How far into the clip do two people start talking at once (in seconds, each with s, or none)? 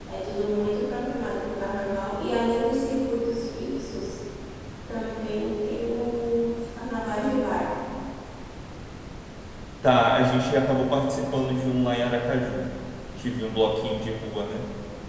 none